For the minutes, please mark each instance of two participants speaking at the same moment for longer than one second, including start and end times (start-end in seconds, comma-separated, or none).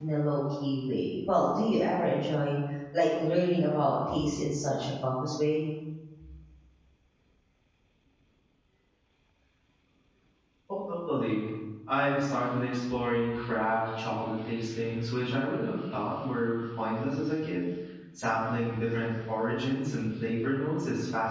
none